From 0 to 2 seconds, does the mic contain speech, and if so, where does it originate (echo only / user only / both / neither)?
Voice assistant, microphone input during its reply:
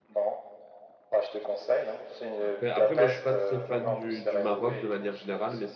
echo only